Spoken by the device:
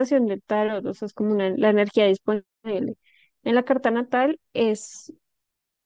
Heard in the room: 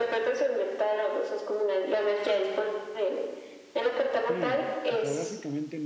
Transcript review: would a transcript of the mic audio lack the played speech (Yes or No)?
No